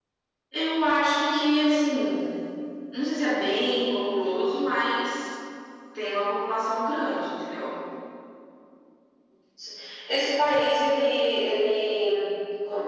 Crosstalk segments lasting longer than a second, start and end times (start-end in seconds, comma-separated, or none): none